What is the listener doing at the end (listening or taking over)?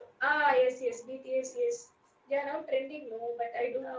taking over